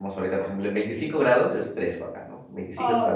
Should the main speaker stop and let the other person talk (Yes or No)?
Yes